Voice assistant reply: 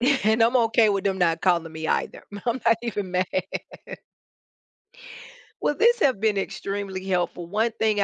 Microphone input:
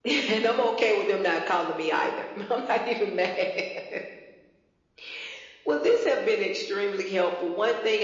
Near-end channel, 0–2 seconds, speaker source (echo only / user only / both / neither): echo only